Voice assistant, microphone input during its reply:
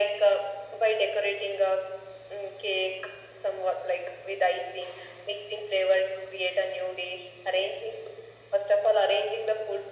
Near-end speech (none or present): none